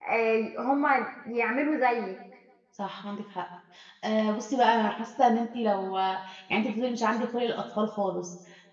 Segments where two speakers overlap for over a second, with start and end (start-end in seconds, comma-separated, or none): none